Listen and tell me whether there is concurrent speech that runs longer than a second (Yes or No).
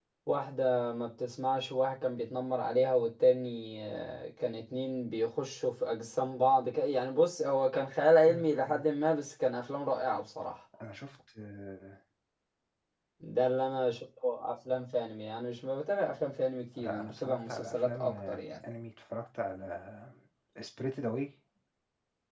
Yes